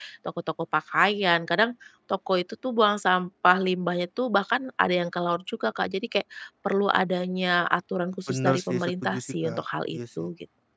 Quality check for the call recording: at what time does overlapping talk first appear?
8.3 s

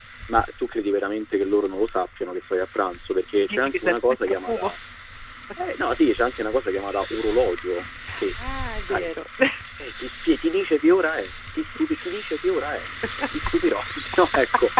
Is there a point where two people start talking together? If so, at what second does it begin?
3.5 s

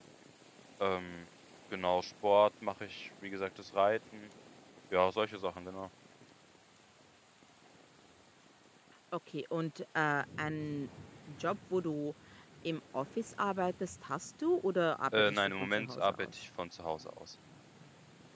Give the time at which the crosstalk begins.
15.1 s

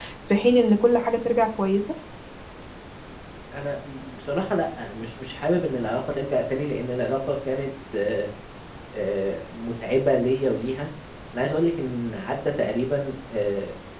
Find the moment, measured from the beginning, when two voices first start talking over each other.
none

